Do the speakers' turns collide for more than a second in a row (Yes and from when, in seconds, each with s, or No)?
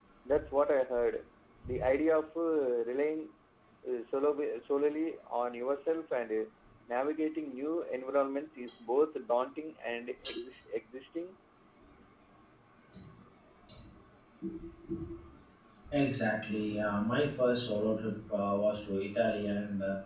No